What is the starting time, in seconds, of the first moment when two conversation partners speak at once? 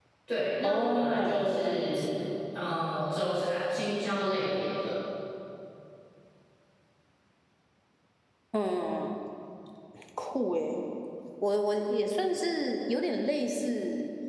0.6 s

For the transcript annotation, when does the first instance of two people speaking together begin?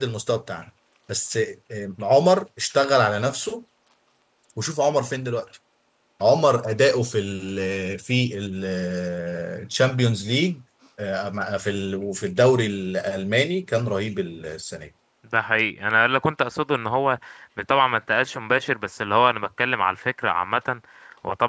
none

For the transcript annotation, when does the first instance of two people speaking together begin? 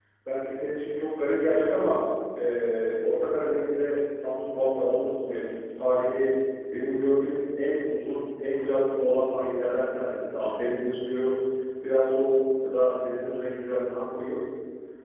none

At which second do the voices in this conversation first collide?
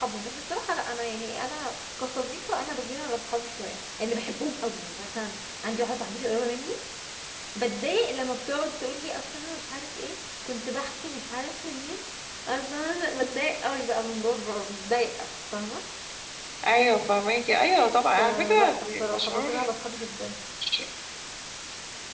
18.2 s

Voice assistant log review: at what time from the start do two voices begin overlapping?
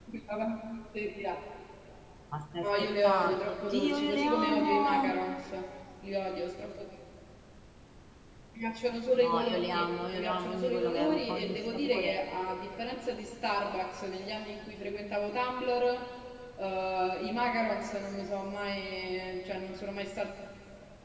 2.6 s

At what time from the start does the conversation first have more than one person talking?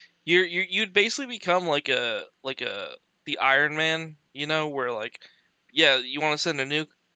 none

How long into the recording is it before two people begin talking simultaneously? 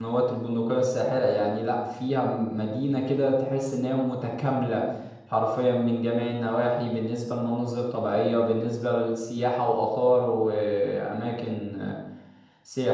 none

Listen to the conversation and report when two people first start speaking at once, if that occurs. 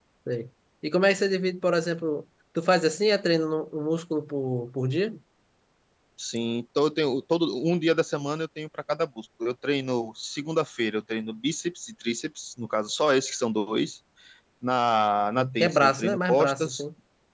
15.3 s

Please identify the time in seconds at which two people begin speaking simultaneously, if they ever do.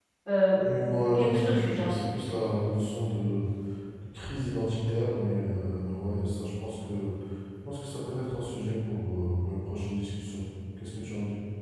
0.6 s

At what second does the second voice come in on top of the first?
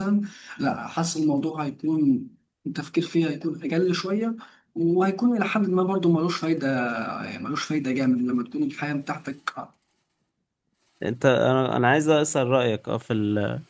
none

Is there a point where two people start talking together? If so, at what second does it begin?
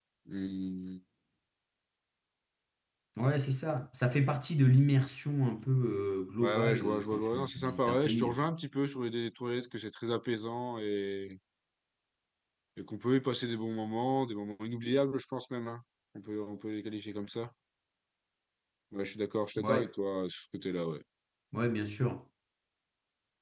6.4 s

